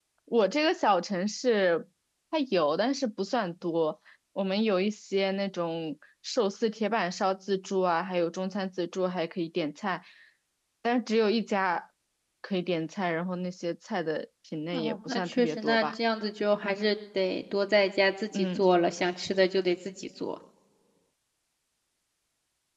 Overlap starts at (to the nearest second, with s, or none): 15 s